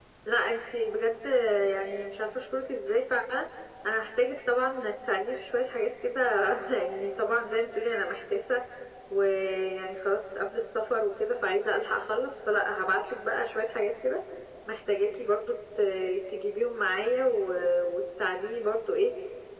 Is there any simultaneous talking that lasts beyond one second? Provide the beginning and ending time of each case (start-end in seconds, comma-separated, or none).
none